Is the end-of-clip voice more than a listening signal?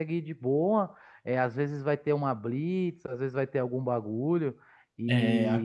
Yes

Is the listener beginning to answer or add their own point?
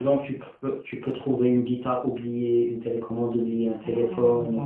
Yes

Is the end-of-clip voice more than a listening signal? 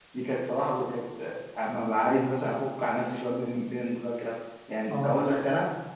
No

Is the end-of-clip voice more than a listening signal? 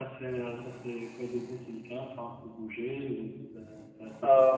Yes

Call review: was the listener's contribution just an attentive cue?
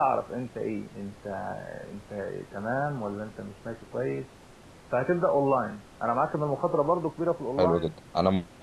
No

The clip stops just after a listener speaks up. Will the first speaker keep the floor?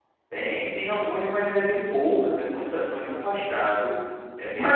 No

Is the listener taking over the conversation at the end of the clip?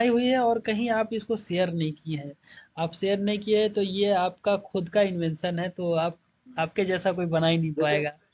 Yes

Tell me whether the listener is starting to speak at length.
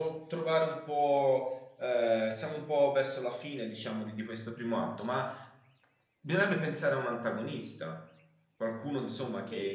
Yes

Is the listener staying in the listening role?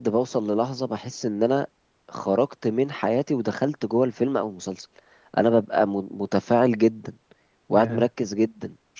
Yes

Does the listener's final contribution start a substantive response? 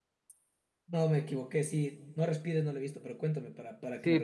Yes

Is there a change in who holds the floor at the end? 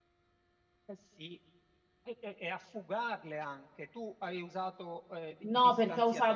Yes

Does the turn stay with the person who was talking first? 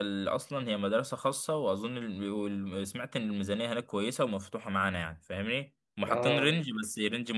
Yes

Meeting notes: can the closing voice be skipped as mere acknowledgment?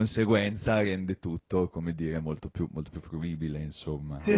No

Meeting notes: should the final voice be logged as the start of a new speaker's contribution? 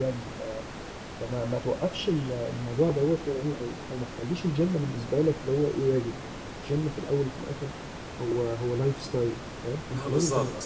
No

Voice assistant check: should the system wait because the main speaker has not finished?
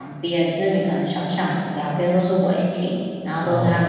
Yes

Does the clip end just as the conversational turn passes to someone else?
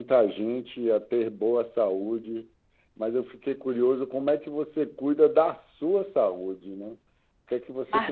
No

